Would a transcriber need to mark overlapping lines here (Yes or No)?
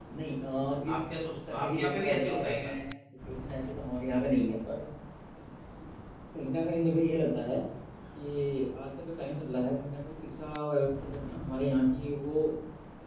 Yes